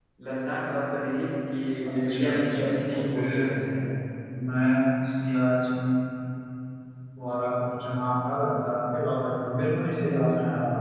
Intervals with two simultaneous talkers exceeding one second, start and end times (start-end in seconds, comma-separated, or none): 1.9-3.4